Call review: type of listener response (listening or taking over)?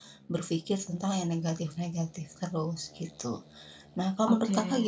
listening